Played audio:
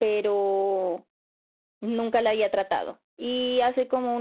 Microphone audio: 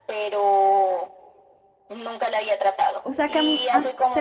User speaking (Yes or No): Yes